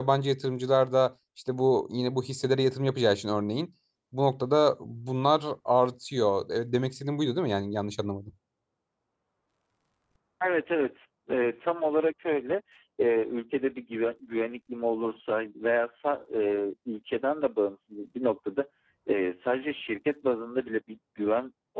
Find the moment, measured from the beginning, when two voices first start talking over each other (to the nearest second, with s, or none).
none